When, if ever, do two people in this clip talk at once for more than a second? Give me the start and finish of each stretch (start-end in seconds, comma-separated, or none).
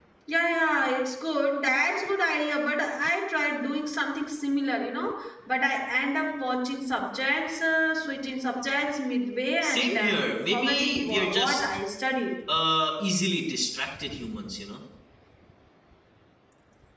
9.6-11.6